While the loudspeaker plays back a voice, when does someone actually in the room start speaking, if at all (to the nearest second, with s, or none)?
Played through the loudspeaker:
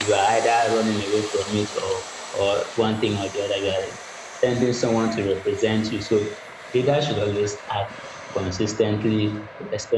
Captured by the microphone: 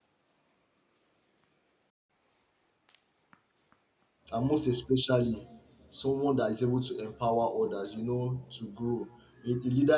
4 s